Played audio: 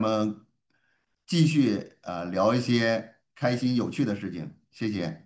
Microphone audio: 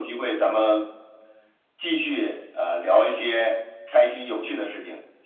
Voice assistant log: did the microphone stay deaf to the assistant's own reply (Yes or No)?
No